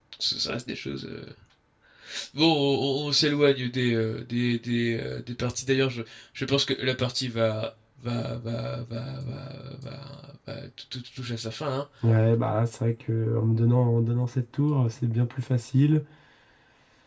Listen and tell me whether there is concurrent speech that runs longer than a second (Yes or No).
No